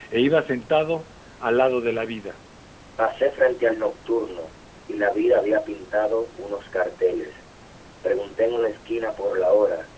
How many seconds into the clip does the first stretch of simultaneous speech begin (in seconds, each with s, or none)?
none